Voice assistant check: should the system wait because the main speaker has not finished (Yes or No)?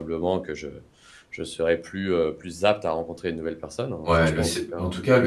No